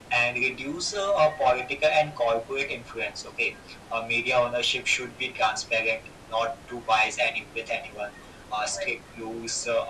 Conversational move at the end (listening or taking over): listening